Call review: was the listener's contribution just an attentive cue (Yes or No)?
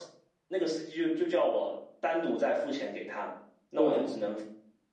Yes